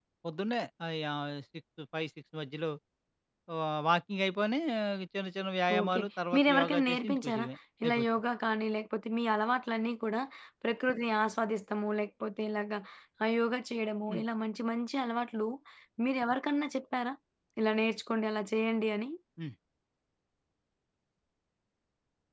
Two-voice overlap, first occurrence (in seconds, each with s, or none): 5.8 s